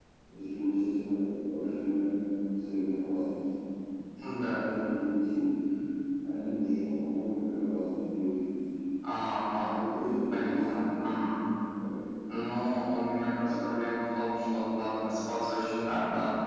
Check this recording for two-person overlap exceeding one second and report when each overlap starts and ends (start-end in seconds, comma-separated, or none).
none